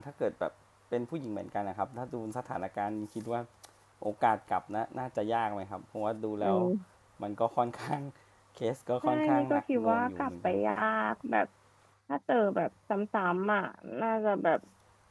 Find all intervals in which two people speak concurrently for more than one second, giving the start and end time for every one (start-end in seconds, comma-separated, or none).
9.0-10.5